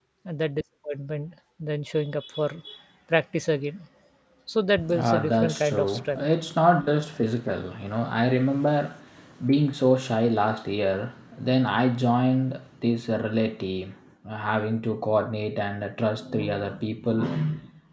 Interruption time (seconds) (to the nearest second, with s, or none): 5 s